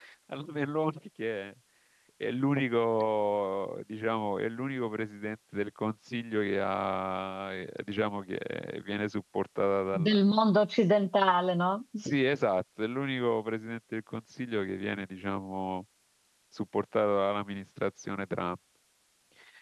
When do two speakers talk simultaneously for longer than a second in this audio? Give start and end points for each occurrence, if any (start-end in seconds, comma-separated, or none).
none